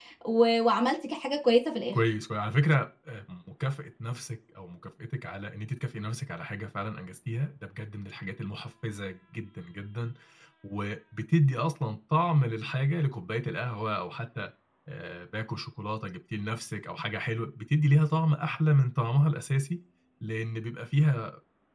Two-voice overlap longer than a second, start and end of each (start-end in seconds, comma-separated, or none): none